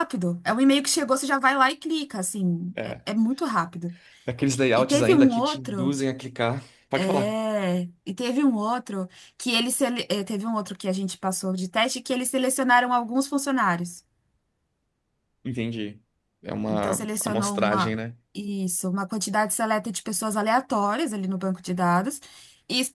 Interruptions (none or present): present